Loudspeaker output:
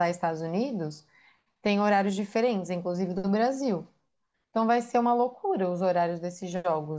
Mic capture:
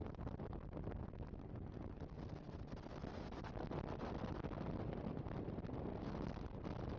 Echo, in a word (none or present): none